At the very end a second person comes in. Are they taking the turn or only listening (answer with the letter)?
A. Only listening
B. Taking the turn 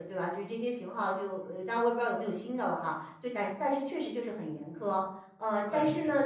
A